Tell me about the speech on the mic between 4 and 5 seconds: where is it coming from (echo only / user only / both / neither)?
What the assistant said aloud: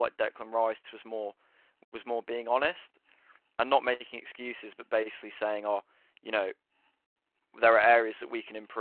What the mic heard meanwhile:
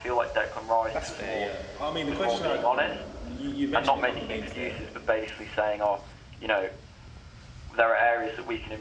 both